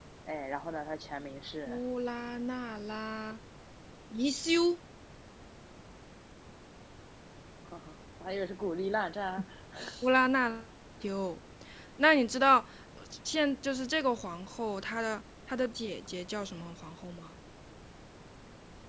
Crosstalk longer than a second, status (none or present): none